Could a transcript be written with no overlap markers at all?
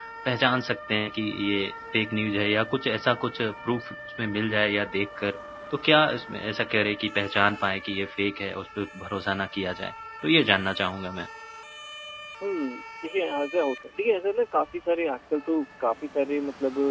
Yes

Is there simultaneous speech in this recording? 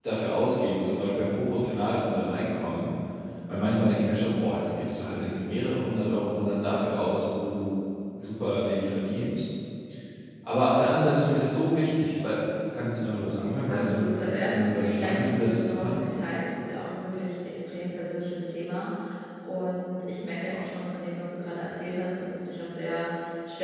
Yes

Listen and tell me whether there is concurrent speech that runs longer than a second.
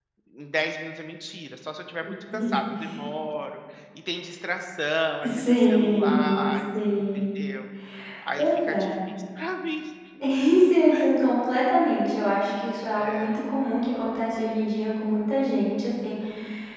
Yes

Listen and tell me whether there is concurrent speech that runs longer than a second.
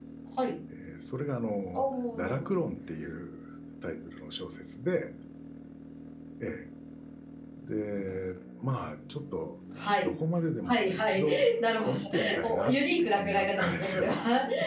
Yes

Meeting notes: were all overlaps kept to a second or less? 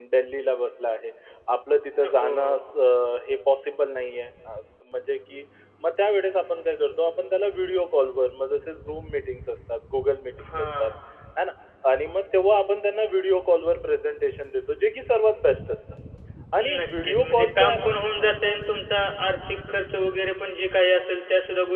No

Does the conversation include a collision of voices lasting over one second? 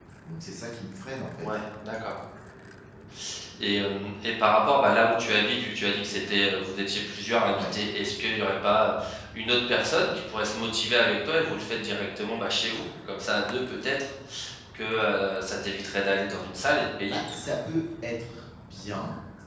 No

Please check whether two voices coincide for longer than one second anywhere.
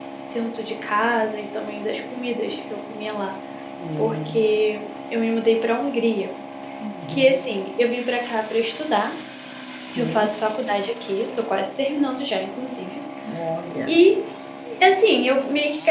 No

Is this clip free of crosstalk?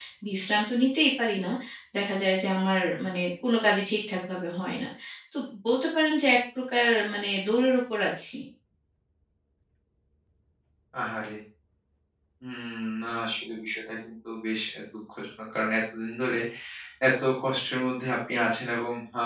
Yes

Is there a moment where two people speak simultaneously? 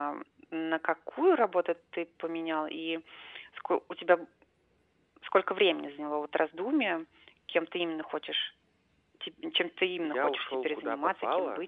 Yes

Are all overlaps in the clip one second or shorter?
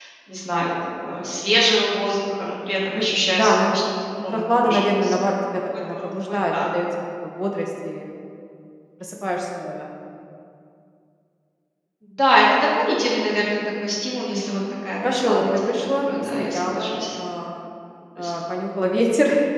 No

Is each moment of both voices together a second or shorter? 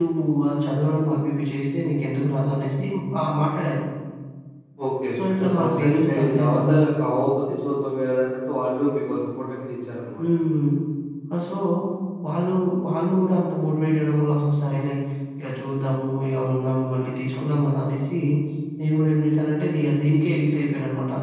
No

